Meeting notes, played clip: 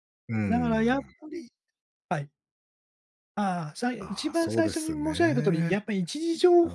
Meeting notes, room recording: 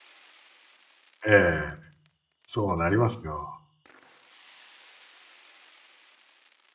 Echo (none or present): none